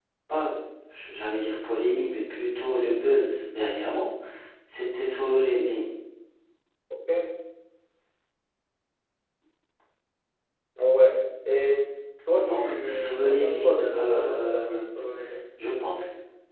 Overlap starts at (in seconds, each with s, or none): 12.4 s